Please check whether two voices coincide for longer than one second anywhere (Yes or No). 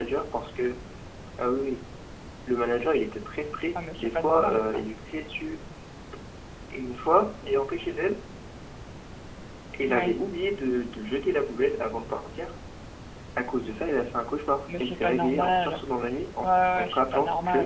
Yes